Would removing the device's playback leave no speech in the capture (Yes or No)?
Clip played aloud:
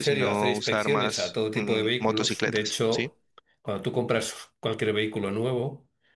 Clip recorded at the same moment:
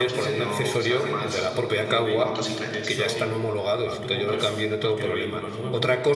No